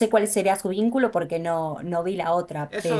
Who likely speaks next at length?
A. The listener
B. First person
A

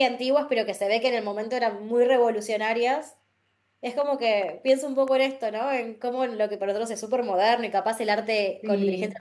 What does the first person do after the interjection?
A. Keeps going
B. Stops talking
A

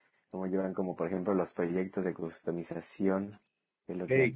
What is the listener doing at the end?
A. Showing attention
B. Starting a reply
B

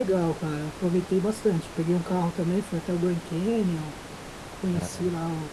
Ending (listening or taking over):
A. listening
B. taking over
A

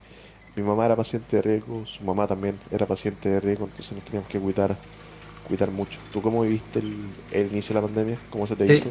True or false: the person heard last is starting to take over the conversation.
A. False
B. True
B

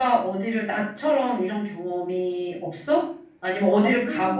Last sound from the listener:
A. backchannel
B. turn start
A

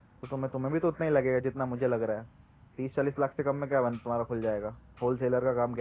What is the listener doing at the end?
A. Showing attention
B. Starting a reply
B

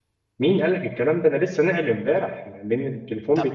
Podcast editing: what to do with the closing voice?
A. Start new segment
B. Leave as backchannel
B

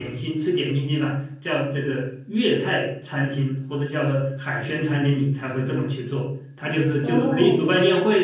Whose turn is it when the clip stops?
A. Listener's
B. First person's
B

